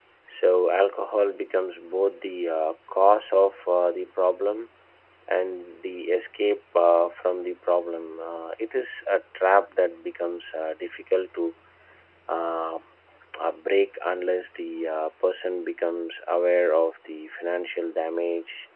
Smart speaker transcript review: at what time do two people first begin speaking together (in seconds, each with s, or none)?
none